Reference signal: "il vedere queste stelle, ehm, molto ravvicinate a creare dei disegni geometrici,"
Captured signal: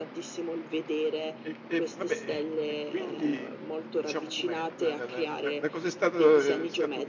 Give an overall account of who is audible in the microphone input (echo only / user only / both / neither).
both